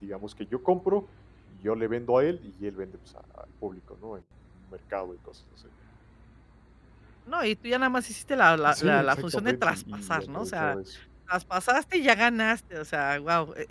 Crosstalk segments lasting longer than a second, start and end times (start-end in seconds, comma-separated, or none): 8.7-10.8